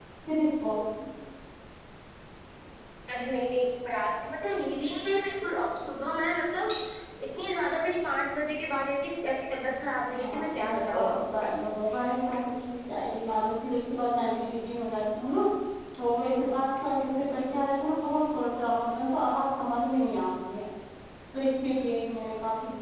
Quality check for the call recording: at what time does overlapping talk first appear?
10.2 s

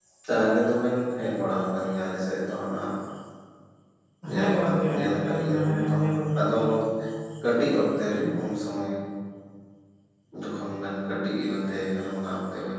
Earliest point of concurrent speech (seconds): 4.3 s

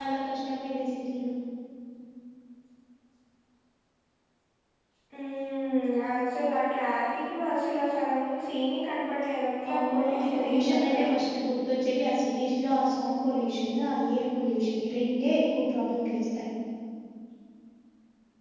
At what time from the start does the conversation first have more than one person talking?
9.6 s

